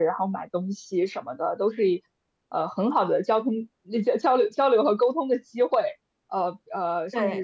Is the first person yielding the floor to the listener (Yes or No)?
No